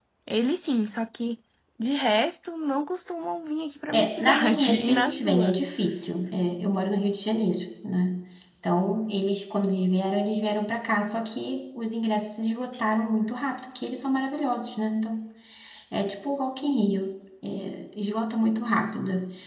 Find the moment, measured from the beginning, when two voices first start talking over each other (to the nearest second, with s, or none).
4 s